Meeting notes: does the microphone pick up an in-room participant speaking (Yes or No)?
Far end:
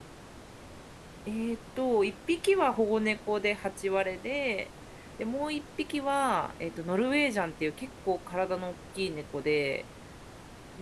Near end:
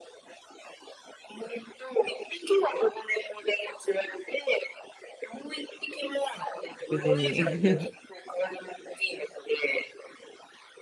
Yes